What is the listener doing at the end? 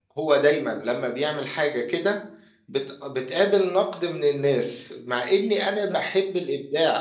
listening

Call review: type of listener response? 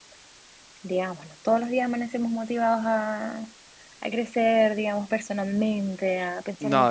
listening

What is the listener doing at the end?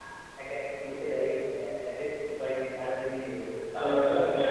taking over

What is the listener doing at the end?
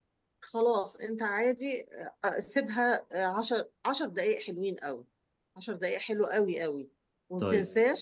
listening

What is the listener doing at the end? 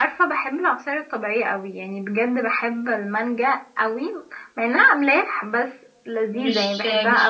taking over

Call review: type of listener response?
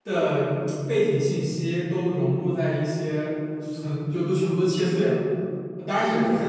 listening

